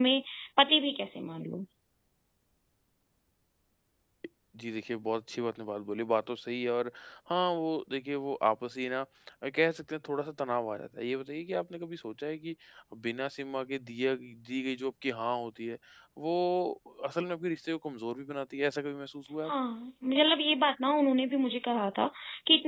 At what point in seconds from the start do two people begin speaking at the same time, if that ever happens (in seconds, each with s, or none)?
none